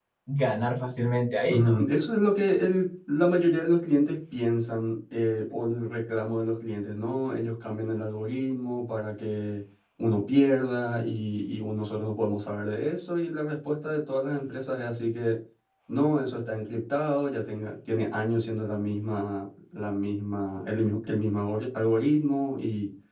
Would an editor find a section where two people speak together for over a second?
No

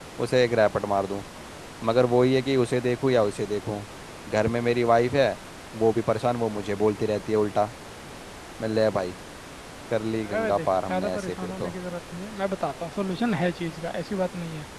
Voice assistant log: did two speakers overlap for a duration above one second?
Yes, from 10.2 s

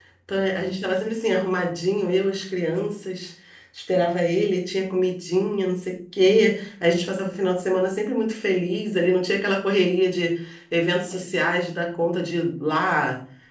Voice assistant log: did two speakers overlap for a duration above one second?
No

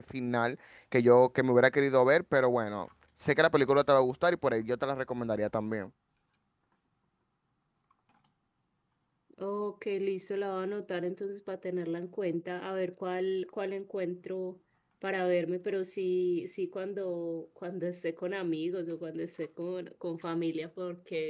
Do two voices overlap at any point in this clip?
No

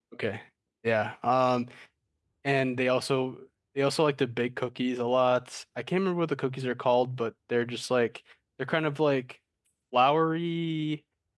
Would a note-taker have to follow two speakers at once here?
No

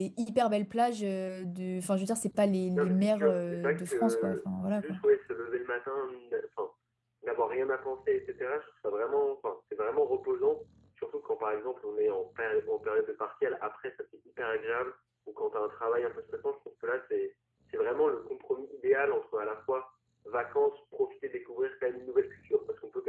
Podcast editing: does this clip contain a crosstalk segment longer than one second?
Yes, from 2.8 s

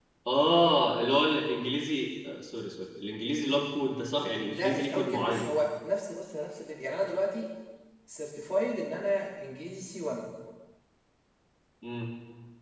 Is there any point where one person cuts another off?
Yes, from 4.3 s

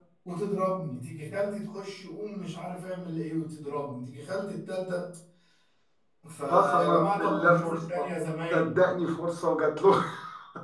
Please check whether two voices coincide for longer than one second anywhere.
Yes, from 6.5 s

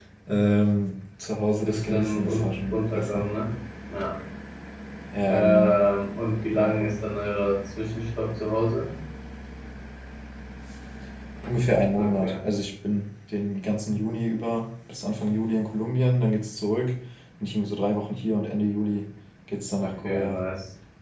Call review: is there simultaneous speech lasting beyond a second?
Yes, from 1.6 s

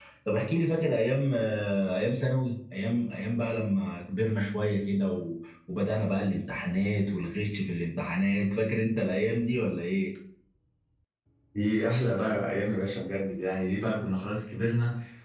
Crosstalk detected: No

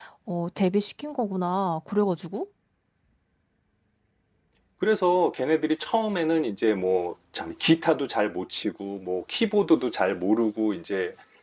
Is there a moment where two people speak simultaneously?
No

